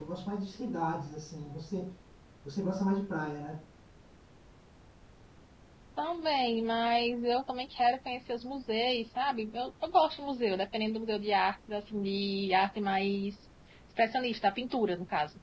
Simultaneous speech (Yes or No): No